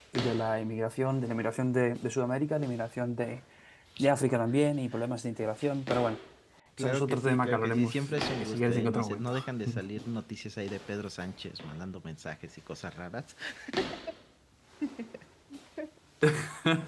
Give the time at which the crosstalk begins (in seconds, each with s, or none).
6.8 s